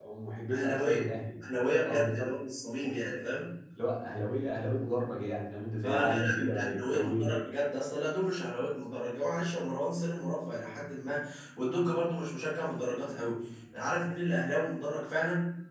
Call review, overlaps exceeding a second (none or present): present